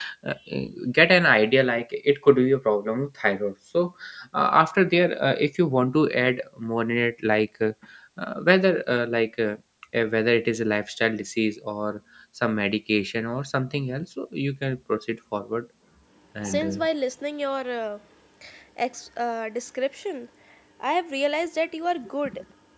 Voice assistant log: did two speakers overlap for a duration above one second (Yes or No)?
No